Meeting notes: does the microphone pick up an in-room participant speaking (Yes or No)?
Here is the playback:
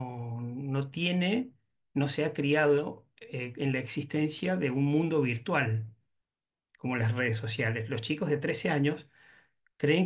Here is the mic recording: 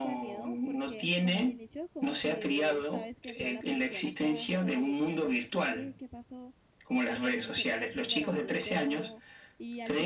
Yes